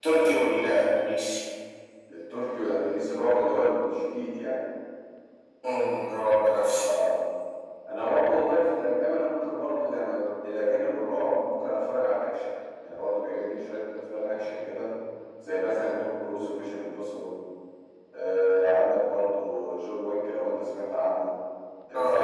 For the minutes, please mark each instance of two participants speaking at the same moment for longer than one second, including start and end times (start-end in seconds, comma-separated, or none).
none